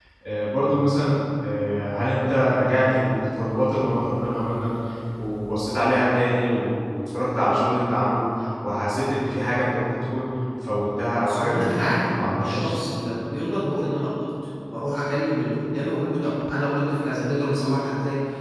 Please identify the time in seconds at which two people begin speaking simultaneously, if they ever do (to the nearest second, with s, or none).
11 s